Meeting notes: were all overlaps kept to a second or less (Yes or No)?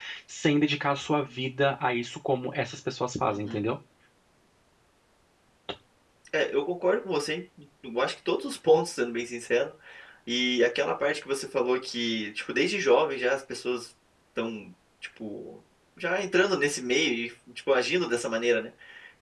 Yes